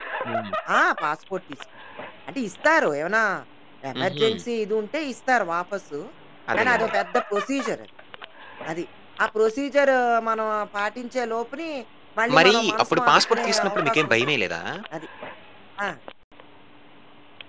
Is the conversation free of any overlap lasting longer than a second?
No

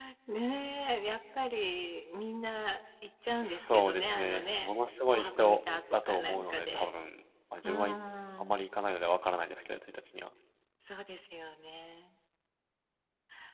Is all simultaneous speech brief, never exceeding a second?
No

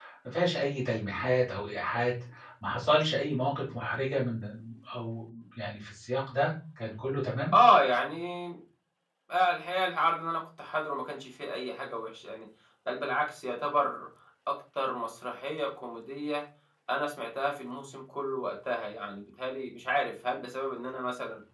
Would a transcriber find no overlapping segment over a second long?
Yes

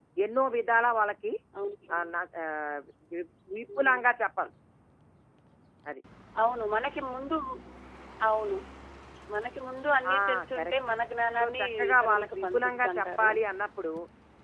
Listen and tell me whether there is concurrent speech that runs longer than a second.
Yes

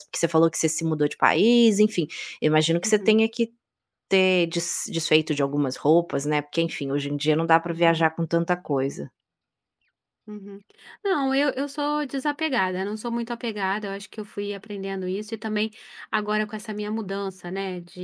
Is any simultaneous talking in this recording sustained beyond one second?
No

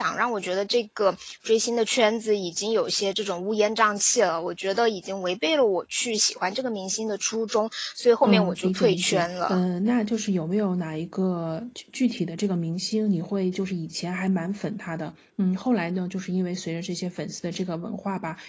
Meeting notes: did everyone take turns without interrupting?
No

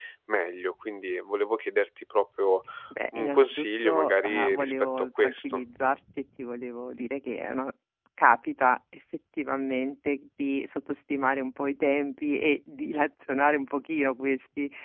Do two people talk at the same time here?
Yes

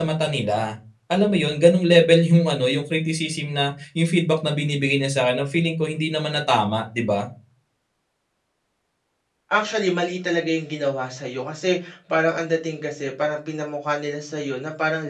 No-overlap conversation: Yes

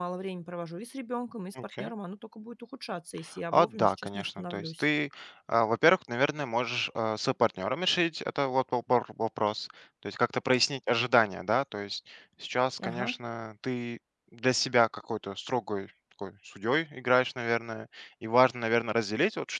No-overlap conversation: No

